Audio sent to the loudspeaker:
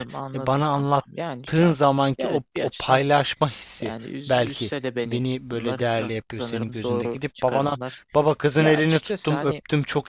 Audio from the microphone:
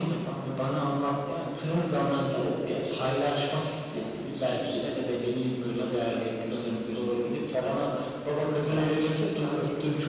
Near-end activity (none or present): none